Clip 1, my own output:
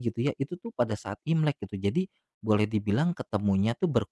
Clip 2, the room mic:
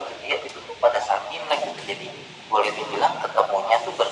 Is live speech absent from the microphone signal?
Yes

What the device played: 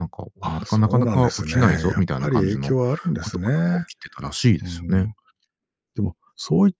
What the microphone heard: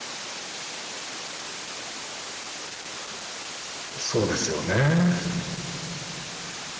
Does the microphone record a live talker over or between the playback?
Yes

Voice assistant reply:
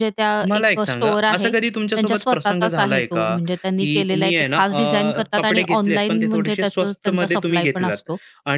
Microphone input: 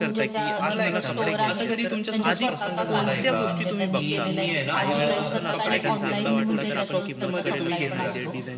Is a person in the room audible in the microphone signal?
Yes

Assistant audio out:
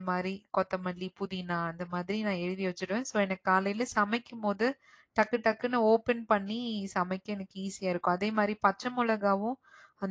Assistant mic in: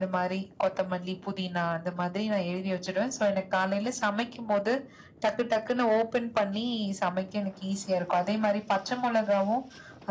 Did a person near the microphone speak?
No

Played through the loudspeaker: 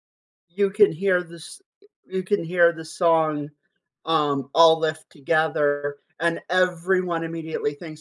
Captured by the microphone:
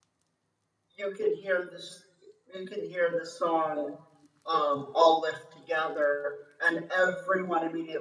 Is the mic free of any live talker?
Yes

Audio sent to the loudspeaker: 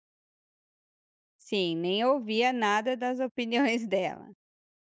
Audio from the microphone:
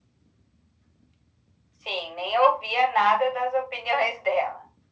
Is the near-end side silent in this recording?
Yes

